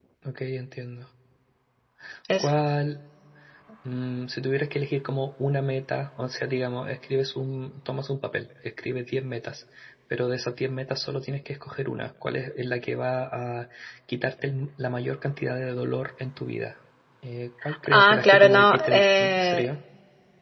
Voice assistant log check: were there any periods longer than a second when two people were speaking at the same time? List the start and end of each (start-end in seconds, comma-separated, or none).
17.9-19.6